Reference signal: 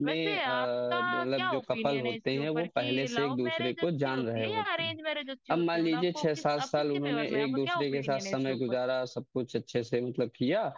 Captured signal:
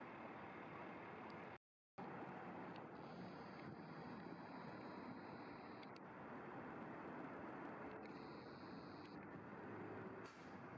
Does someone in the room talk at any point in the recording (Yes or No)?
No